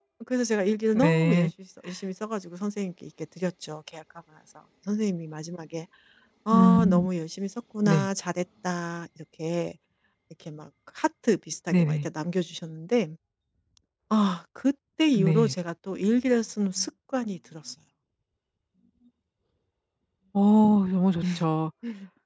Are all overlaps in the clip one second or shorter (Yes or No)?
Yes